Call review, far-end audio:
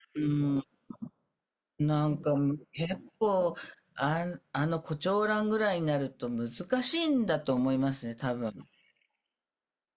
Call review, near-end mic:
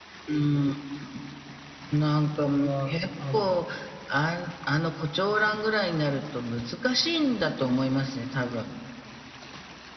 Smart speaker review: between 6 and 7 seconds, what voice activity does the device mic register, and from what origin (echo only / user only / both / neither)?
echo only